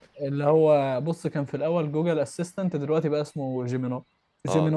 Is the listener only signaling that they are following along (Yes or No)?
No